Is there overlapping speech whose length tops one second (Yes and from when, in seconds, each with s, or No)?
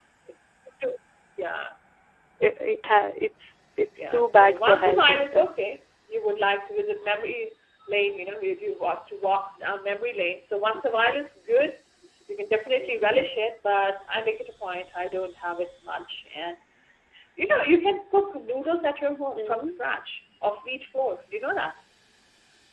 Yes, from 4.1 s